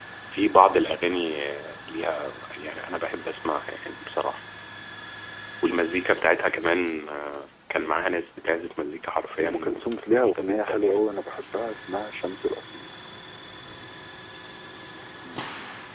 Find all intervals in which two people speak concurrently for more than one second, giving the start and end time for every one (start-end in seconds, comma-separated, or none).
9.4-11.0